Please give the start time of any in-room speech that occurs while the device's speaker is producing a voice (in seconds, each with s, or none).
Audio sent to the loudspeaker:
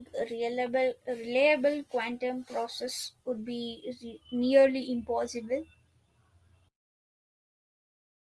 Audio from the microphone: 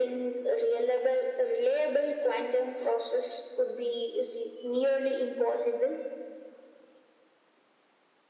none